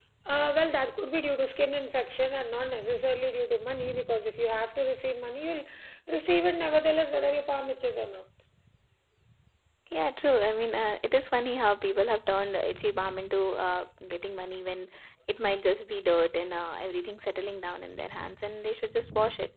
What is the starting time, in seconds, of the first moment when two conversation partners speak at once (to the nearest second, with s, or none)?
none